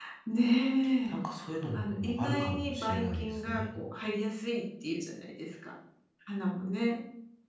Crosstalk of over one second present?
Yes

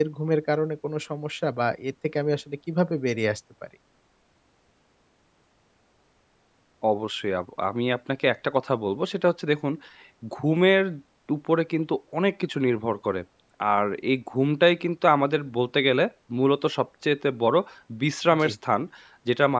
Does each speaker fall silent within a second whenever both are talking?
Yes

